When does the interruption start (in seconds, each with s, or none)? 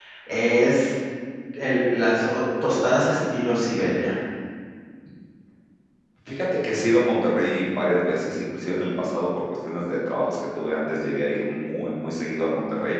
none